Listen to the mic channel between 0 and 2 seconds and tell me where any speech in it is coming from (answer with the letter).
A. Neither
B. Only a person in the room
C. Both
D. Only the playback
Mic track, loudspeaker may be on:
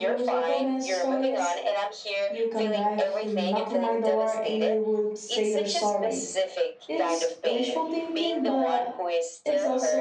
C